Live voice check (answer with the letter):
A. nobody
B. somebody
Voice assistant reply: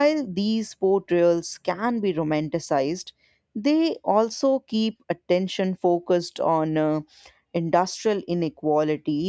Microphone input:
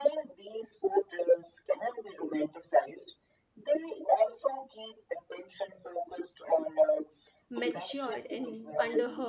B